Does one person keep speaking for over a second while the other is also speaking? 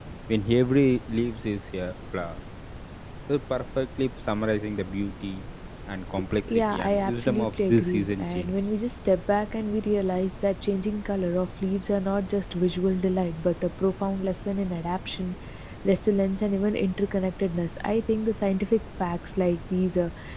Yes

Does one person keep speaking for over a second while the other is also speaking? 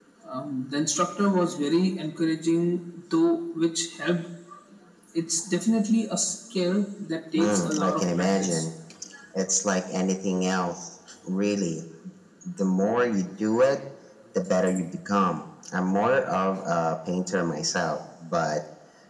Yes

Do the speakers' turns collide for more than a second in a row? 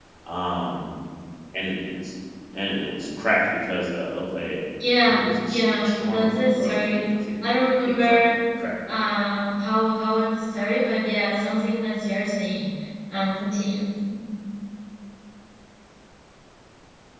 Yes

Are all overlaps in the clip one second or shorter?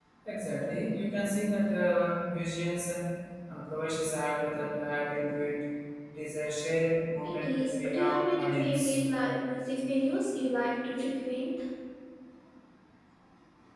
No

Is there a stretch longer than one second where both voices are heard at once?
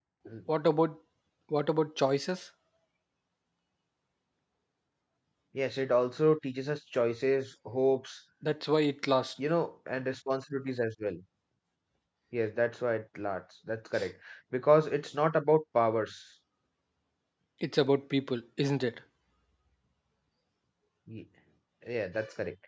No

